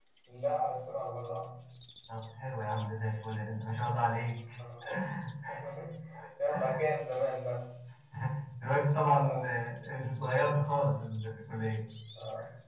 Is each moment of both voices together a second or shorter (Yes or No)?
Yes